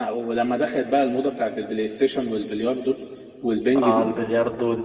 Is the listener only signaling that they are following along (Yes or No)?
No